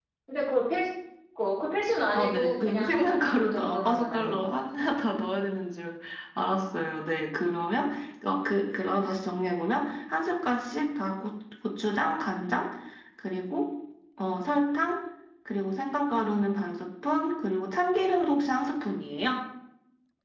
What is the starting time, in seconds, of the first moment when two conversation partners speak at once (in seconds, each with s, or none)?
2.1 s